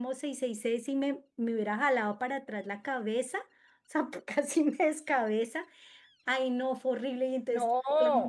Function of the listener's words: listening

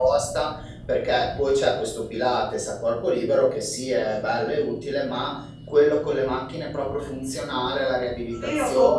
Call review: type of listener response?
taking over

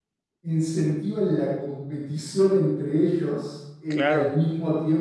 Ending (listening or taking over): listening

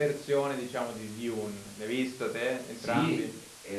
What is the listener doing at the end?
taking over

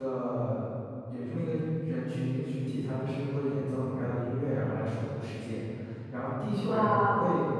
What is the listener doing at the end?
listening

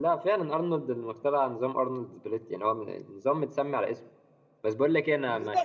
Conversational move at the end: listening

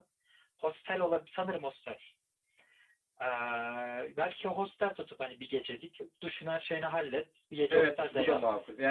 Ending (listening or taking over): taking over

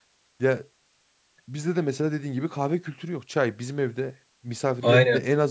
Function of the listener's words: listening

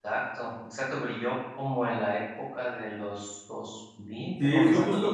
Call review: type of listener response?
taking over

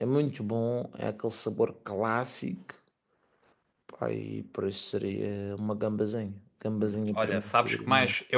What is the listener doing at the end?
taking over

